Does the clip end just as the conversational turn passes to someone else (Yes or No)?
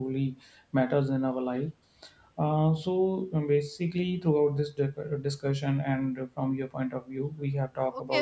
Yes